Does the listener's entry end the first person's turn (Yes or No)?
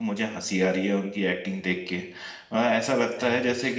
No